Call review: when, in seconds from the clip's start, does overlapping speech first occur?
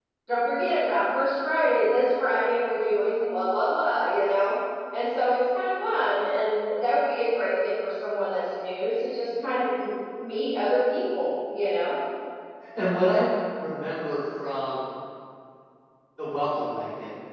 none

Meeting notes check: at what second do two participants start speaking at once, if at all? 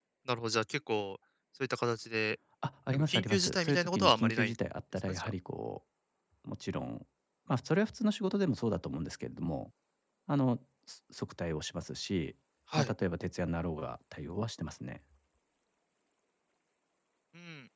2.9 s

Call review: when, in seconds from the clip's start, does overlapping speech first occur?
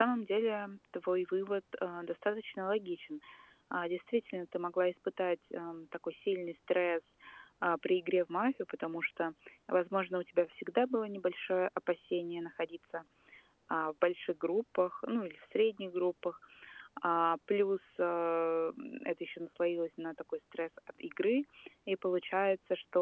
none

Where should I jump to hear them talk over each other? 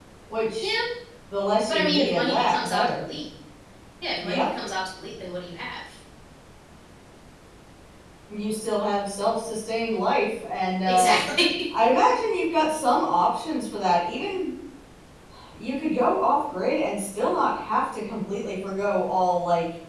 1.7 s

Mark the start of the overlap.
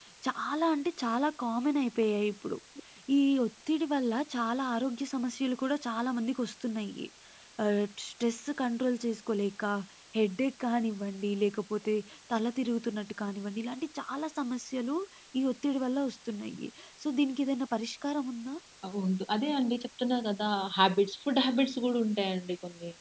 none

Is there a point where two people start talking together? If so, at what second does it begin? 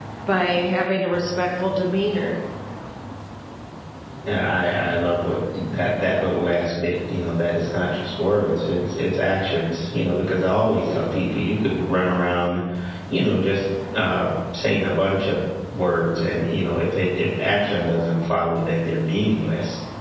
none

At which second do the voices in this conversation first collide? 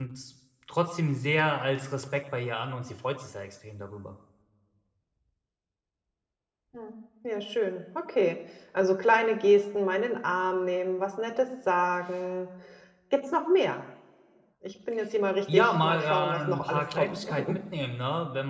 15.5 s

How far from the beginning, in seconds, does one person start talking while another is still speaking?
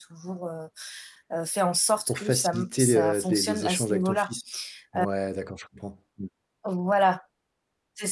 2.1 s

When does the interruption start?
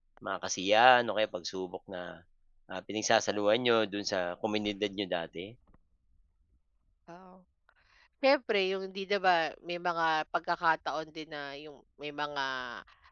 none

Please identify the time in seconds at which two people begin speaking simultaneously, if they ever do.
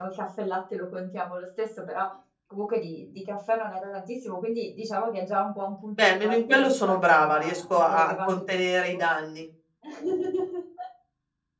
6.0 s

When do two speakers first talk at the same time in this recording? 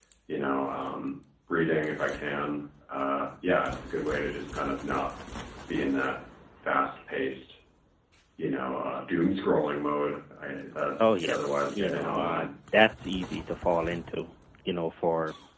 11.0 s

